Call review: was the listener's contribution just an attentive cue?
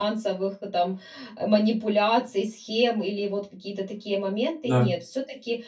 Yes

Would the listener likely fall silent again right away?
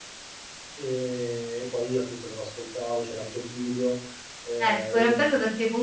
No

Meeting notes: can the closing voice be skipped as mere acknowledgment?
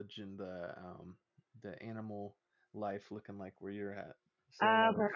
No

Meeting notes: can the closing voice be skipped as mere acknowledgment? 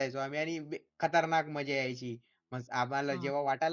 Yes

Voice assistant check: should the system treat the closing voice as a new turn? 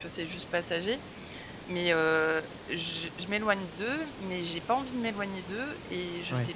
No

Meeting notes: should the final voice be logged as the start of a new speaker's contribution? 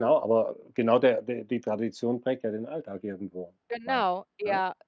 Yes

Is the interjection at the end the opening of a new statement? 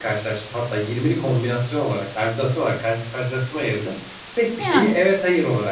No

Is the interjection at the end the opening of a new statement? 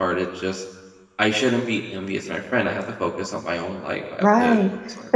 Yes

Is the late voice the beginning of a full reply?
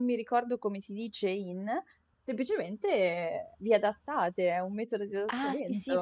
Yes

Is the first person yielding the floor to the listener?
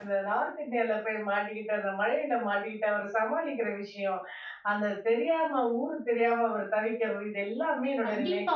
Yes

